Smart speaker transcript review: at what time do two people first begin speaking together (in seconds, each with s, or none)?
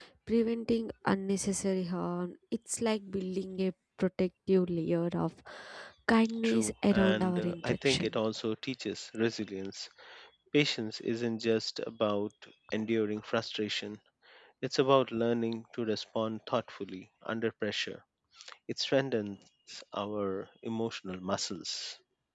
6.4 s